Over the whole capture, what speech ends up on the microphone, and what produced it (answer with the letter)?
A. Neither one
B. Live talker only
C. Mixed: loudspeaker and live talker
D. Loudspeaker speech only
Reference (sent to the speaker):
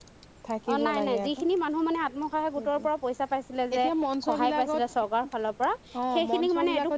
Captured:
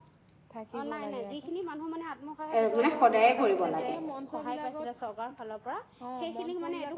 C